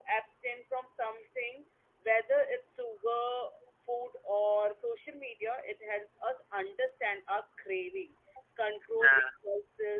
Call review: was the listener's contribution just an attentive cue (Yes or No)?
Yes